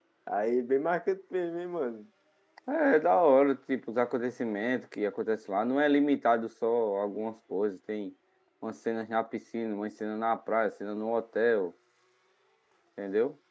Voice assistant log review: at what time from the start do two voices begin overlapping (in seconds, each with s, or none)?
none